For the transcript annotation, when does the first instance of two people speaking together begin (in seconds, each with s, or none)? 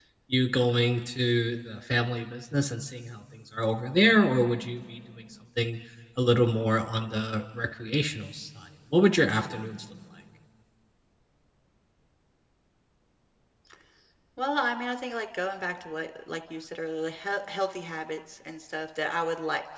none